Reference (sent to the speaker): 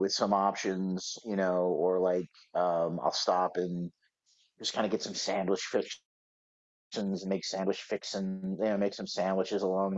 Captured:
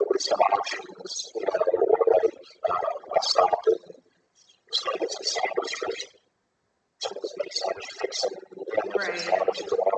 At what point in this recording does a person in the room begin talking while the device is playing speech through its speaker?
8.8 s

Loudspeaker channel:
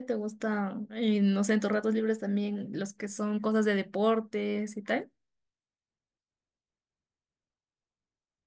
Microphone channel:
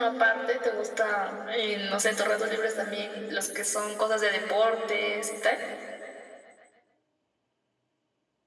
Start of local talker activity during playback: none

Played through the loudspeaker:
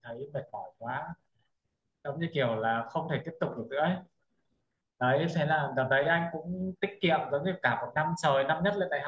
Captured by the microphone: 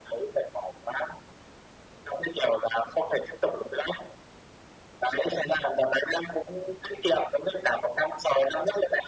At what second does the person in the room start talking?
none

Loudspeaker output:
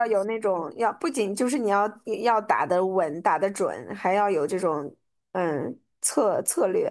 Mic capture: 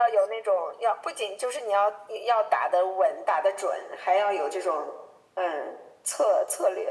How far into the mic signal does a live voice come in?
none

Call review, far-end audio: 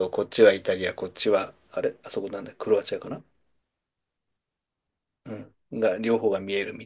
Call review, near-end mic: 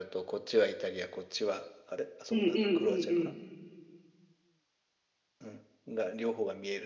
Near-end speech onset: 2.3 s

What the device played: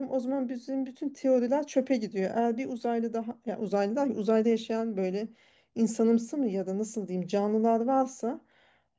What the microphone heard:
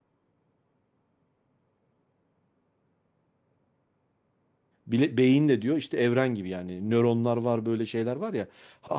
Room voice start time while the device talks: 4.9 s

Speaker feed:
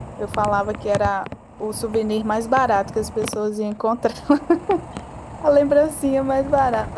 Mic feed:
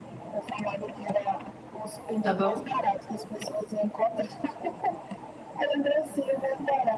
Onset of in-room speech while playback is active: 2.2 s

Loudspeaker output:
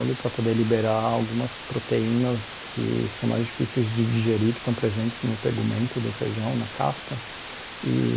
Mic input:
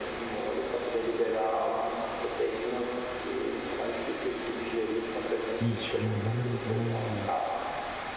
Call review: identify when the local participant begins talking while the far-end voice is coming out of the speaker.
5.6 s

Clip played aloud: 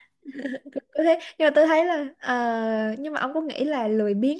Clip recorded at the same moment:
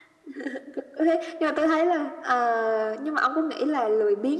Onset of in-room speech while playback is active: none

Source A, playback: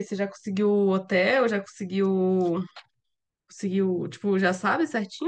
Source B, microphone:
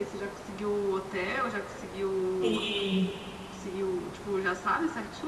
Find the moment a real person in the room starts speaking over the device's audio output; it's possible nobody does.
2.4 s

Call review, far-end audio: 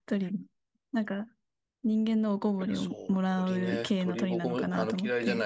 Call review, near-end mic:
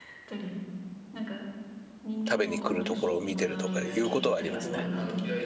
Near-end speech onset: 2.3 s

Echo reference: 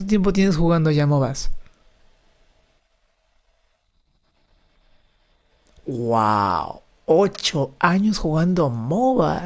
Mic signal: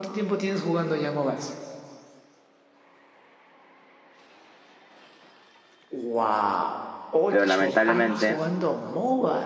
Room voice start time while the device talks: 7.3 s

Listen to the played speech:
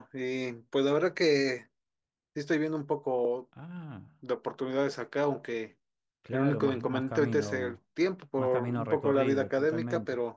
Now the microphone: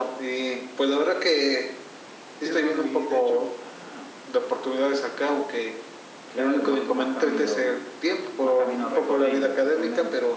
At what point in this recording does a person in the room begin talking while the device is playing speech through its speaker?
2.4 s

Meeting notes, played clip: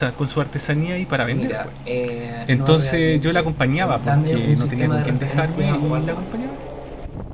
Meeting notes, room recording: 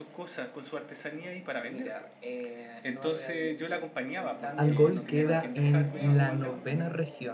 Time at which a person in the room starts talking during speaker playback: 4.6 s

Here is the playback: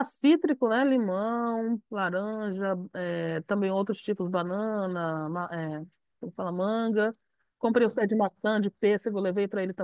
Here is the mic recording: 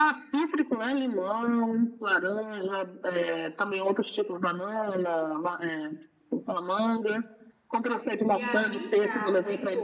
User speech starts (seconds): 8.2 s

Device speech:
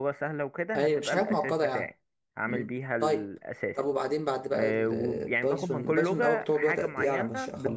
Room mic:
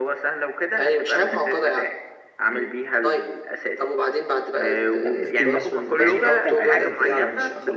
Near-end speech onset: 5.0 s

